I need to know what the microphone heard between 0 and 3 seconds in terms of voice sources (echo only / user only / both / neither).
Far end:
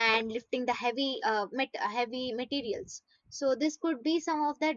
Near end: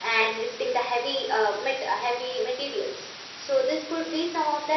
echo only